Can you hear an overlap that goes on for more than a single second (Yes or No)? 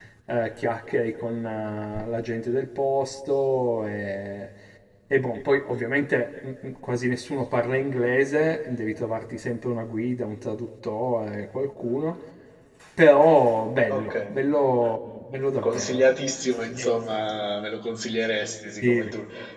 No